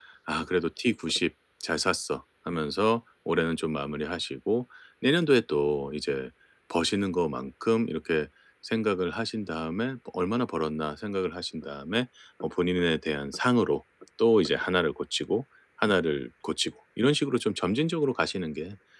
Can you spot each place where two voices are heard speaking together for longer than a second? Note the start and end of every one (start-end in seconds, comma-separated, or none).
none